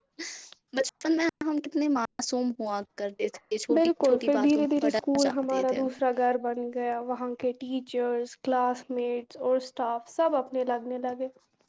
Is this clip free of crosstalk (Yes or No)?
No